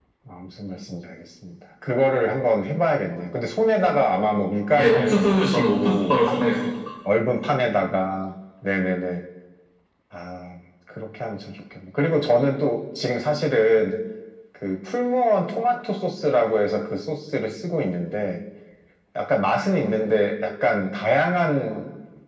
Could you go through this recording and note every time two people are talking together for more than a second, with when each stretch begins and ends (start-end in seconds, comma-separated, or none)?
4.8-6.1